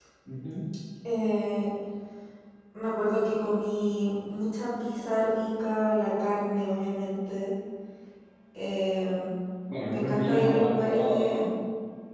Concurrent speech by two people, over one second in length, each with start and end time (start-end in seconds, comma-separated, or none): 9.9-11.5